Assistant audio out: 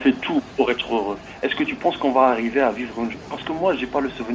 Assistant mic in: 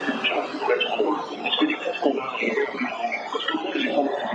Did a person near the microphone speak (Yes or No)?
No